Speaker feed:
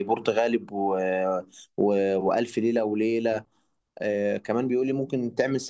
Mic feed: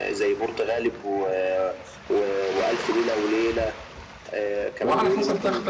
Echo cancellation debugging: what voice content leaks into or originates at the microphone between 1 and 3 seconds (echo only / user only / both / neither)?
echo only